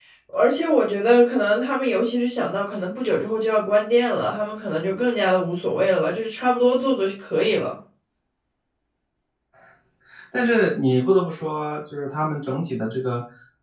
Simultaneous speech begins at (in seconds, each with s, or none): none